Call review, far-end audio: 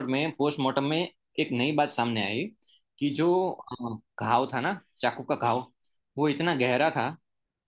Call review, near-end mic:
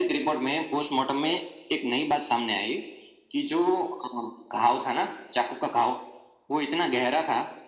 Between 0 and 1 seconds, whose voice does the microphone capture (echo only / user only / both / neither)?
echo only